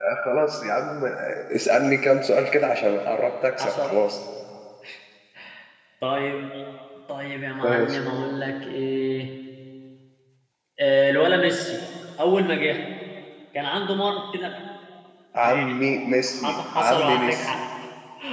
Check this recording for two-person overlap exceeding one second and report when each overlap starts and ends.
16.3-17.5

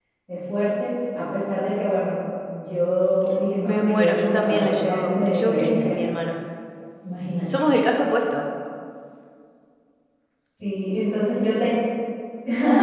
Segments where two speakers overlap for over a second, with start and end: 3.7-6.0

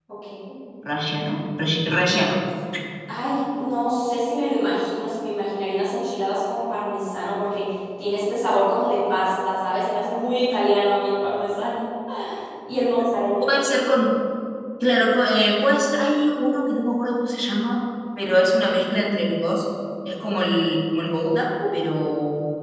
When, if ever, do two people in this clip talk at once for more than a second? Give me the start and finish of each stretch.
none

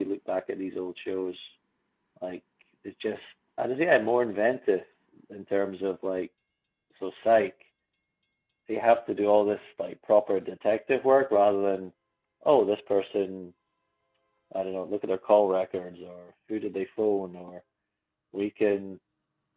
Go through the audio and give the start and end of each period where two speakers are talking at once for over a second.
none

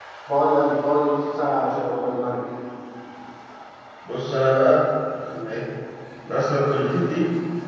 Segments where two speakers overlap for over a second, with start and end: none

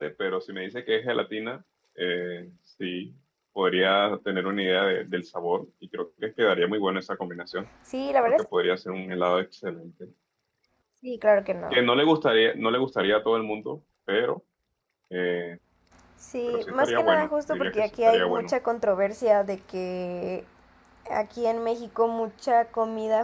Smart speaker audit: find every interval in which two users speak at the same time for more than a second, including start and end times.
16.5-18.5

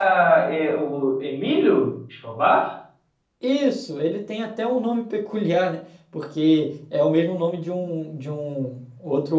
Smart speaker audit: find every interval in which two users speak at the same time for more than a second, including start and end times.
none

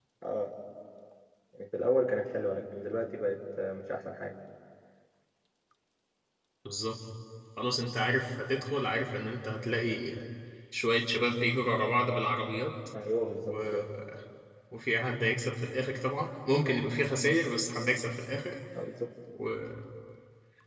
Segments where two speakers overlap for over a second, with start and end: none

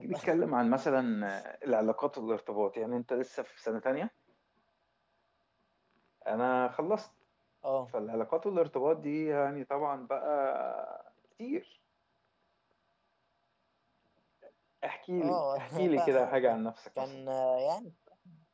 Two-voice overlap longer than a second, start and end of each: 15.2-16.6

